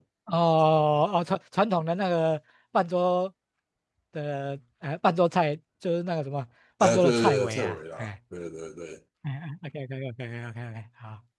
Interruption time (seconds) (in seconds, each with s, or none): 6.8 s